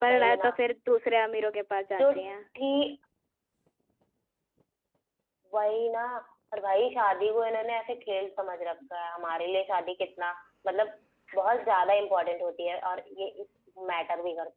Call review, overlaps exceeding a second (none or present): none